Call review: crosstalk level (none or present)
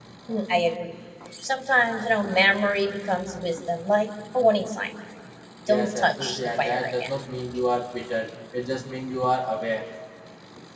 present